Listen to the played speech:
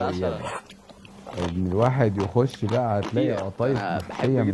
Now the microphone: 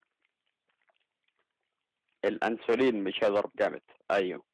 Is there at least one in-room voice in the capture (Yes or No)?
Yes